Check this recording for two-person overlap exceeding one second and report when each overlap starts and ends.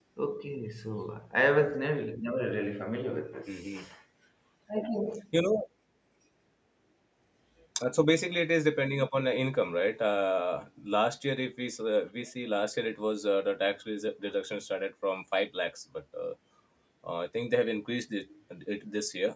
none

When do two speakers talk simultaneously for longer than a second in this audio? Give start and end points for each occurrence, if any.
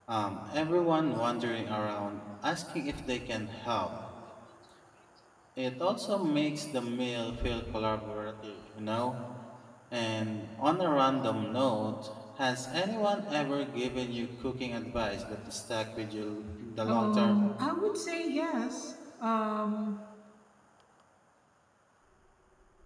none

